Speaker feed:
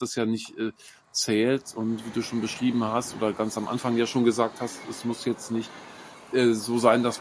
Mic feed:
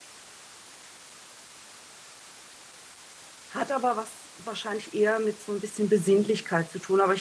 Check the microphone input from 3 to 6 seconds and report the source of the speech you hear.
user only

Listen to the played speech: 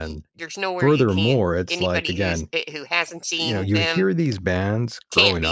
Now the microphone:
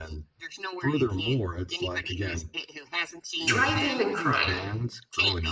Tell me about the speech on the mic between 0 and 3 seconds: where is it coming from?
echo only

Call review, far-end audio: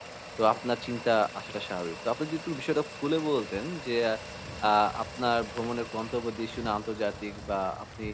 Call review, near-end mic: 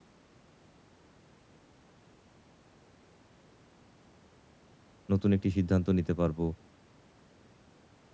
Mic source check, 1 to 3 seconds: neither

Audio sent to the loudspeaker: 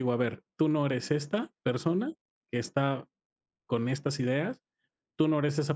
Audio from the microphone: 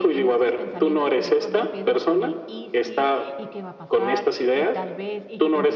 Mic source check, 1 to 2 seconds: both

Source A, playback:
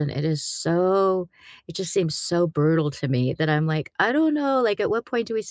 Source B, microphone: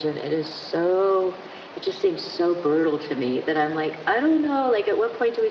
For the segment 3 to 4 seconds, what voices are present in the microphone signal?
echo only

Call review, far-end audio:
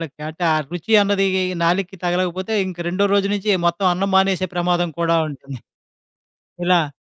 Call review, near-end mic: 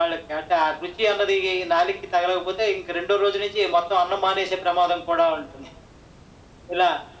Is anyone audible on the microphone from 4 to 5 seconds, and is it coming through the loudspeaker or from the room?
echo only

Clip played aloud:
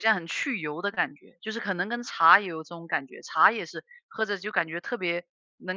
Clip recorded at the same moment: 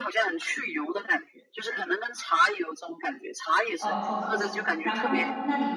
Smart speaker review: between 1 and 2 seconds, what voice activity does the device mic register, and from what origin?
echo only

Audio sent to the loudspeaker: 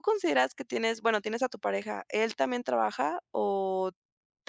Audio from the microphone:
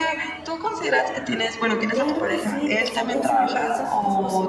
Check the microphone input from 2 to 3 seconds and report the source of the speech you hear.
both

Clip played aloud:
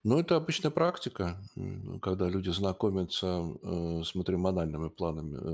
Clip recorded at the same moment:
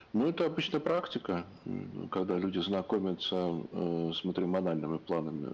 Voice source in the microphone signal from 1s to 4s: echo only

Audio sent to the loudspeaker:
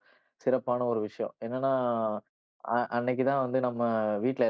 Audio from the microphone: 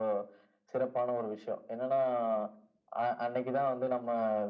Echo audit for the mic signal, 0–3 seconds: echo only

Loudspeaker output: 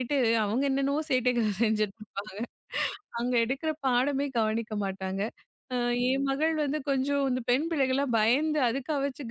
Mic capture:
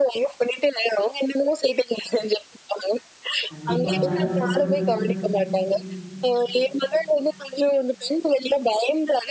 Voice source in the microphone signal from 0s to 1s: echo only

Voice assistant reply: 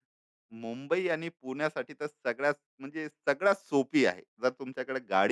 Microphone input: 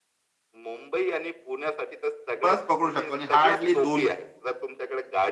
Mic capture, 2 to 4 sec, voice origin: both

